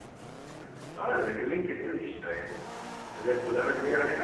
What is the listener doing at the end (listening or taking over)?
taking over